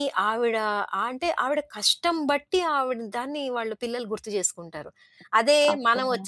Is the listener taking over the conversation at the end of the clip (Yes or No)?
No